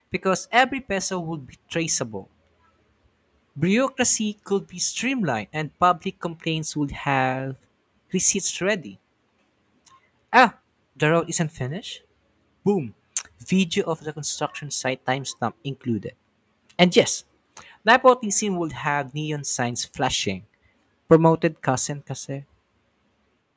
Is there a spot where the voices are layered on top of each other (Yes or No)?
No